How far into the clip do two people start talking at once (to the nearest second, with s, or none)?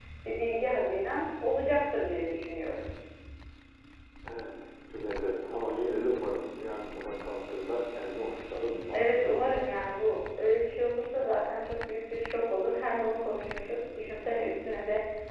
none